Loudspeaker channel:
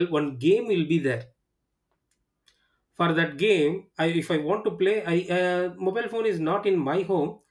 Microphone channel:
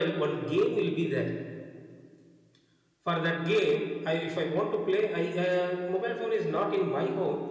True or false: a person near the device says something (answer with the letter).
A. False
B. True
A